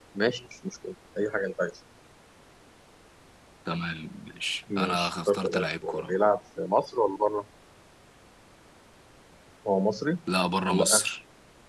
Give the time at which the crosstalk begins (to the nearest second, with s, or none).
5 s